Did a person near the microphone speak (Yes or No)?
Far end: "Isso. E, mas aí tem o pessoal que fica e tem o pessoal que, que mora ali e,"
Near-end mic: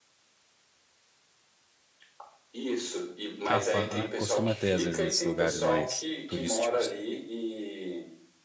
Yes